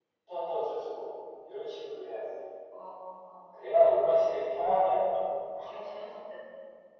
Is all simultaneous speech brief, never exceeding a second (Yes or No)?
Yes